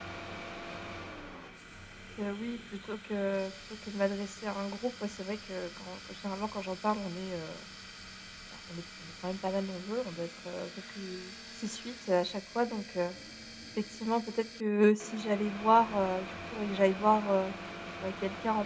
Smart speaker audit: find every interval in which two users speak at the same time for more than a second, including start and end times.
none

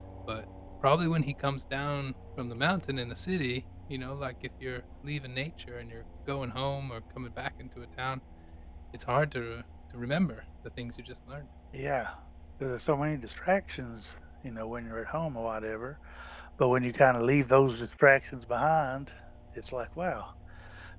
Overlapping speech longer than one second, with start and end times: none

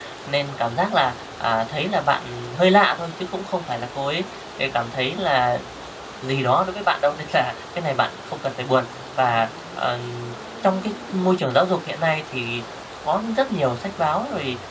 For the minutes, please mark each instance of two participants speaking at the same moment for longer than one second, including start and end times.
none

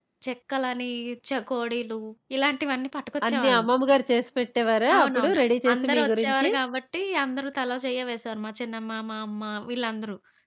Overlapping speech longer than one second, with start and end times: 5.0-6.5

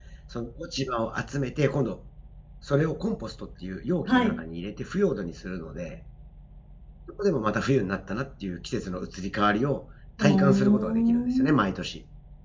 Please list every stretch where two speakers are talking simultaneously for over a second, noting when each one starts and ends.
10.2-11.5

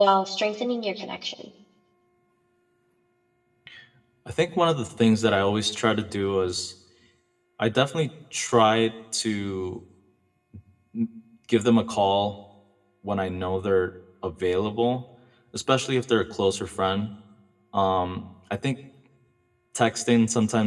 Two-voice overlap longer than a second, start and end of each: none

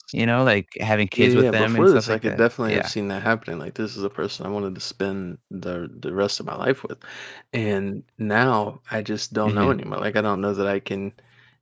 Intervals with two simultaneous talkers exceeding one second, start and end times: 1.2-2.9

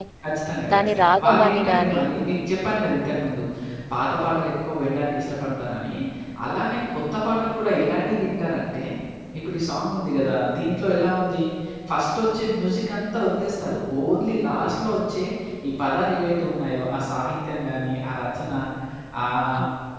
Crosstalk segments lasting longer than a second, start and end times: 0.7-2.0

